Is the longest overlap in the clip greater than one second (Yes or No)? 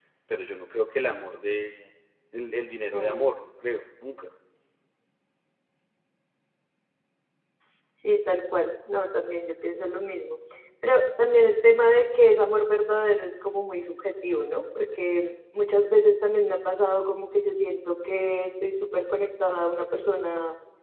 No